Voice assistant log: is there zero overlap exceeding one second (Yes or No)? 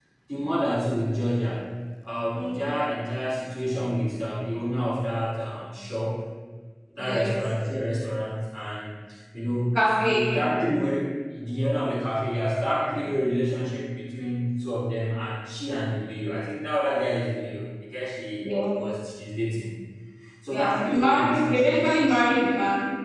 No